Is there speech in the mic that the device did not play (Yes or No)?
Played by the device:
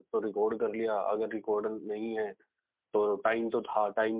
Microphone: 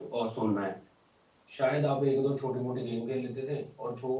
Yes